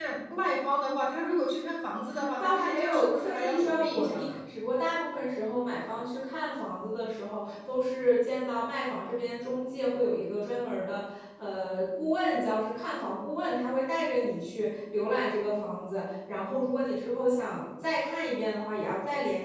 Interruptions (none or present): present